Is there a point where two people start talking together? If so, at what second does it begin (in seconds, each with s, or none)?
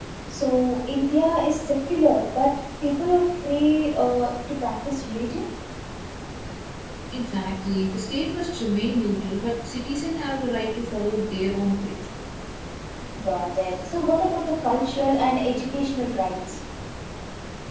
none